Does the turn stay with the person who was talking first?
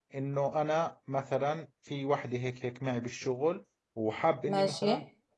Yes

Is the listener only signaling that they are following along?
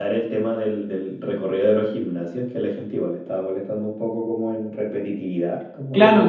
No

